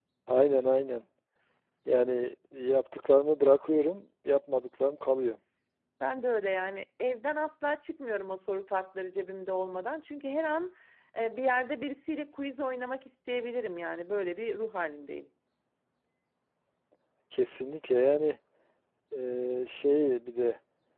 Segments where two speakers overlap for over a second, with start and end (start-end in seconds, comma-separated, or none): none